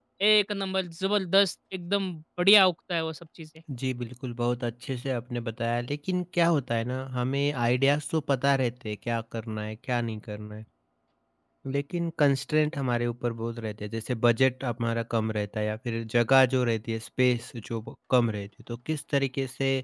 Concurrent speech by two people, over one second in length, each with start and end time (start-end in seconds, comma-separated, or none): none